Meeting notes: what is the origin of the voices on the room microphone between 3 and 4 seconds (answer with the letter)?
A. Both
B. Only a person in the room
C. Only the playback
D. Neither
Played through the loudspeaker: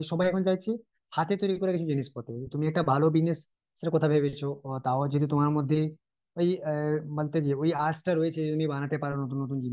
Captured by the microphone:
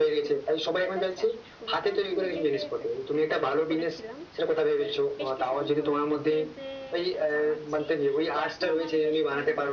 A